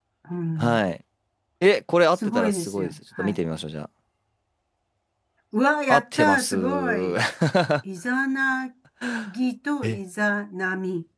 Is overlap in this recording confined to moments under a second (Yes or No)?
No